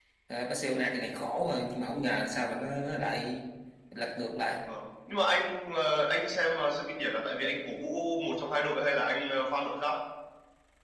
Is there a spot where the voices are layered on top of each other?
No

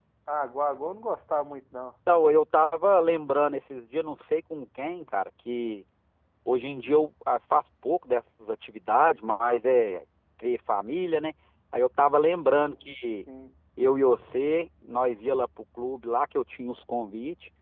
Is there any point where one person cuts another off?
No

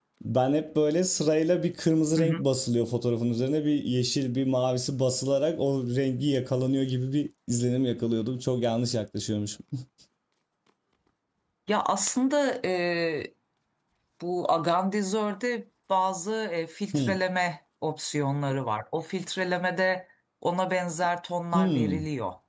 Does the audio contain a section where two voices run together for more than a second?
No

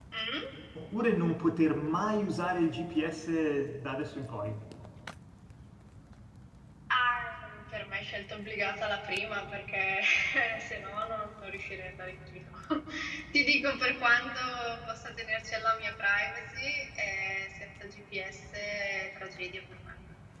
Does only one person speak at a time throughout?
Yes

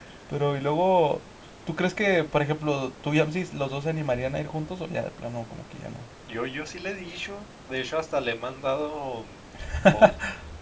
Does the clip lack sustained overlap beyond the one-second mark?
Yes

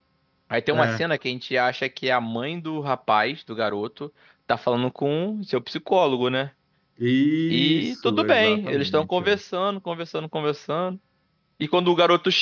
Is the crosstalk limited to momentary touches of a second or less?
No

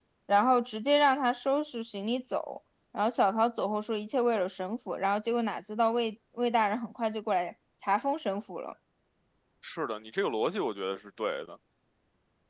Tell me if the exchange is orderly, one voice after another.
Yes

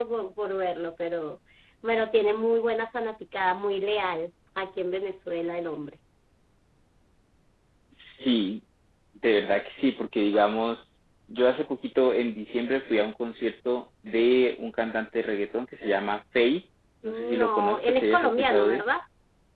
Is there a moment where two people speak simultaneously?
Yes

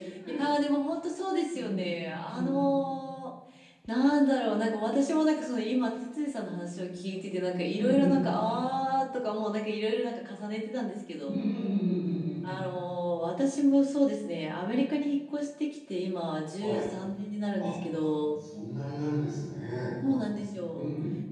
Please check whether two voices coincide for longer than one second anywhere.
No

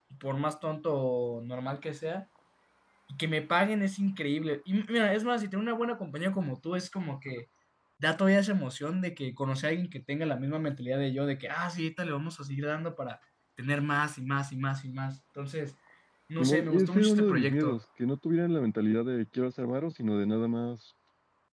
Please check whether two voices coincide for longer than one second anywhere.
Yes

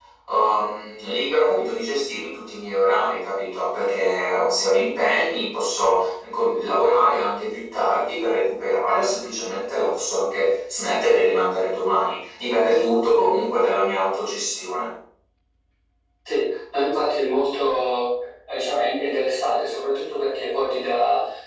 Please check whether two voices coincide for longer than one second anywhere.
No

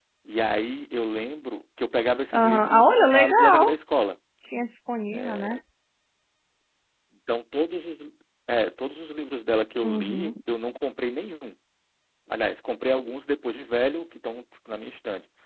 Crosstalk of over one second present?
Yes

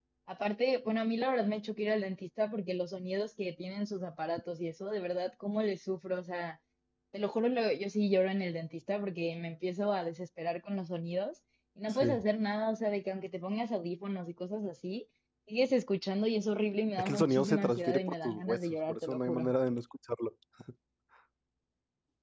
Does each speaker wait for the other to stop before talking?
No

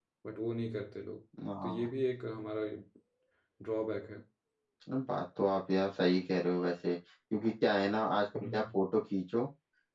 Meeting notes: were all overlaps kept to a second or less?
Yes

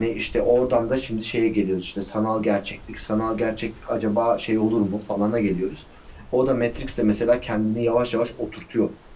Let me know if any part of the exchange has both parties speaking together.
No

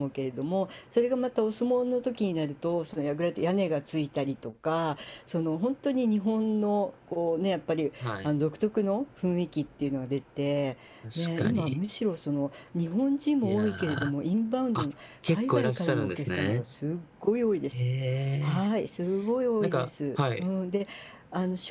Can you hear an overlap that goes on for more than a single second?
Yes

